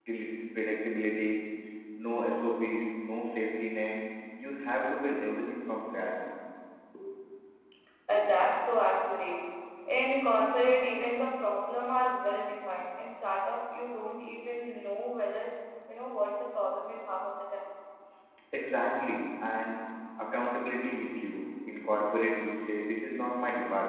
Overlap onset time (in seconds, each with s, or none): none